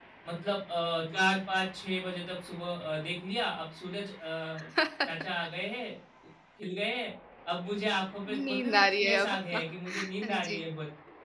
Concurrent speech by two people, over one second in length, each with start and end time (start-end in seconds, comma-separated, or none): 8.3-10.6